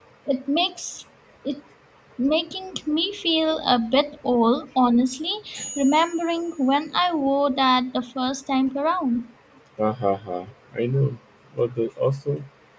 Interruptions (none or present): none